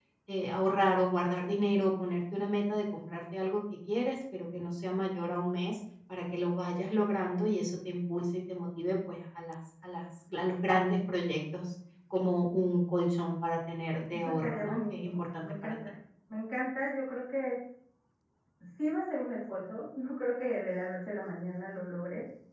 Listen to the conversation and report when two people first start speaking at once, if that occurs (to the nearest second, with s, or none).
14 s